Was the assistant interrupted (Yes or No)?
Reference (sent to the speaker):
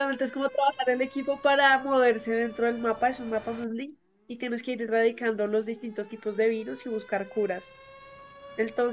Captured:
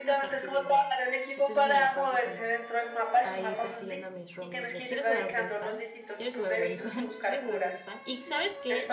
Yes